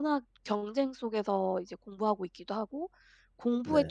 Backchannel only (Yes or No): Yes